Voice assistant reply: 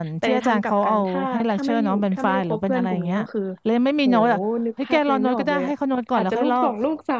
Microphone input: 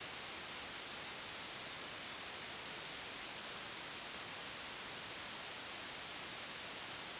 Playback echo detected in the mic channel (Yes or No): No